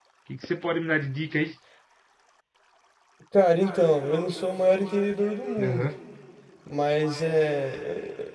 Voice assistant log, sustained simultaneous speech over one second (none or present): none